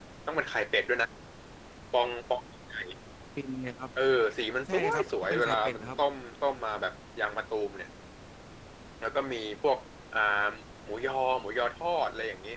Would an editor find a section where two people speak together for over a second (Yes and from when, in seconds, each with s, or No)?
Yes, from 4.6 s